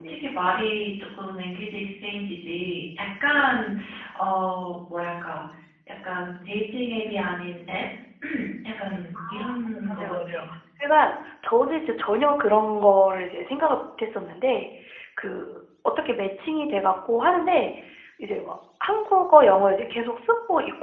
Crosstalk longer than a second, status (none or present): none